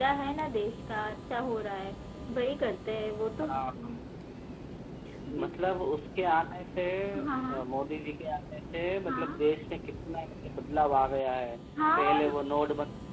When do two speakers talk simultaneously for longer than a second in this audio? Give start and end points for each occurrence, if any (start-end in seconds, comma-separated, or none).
none